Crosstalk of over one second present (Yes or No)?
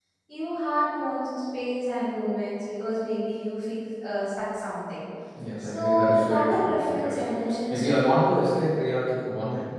Yes